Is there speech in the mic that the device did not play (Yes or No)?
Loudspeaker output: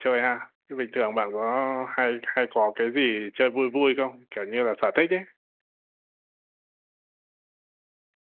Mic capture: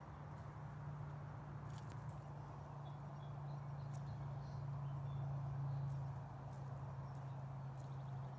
No